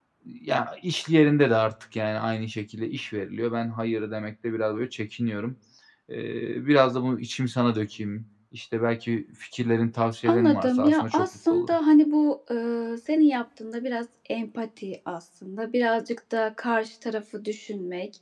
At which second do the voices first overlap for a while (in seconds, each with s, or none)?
10.2 s